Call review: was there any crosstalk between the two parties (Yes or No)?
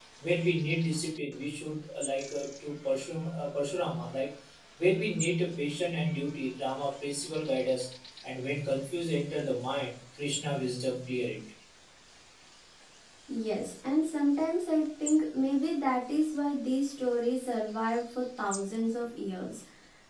No